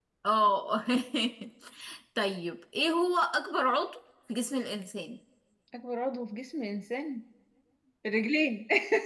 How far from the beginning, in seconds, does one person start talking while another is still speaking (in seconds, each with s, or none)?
none